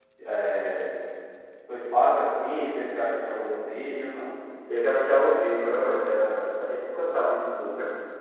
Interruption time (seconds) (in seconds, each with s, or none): none